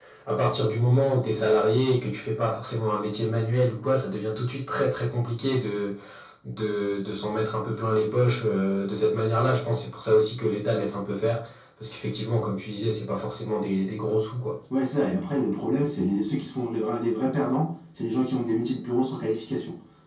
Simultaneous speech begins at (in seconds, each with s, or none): none